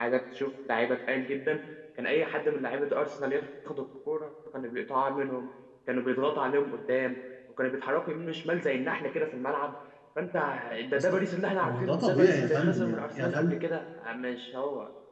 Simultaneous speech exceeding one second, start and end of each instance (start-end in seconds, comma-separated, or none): 11.6-13.6